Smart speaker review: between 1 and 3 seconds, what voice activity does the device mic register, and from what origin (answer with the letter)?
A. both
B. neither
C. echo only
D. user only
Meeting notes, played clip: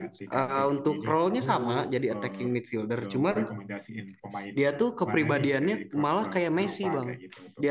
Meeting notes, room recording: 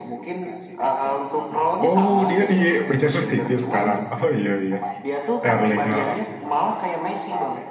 A